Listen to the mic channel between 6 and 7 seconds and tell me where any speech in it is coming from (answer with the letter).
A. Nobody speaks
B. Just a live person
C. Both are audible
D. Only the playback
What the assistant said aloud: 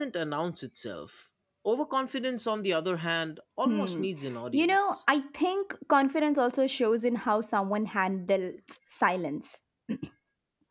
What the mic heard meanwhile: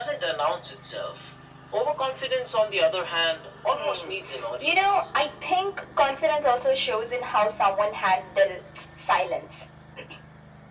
D